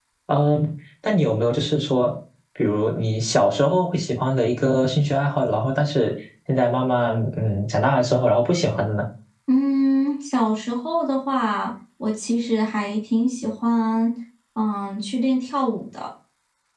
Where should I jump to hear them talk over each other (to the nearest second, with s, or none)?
none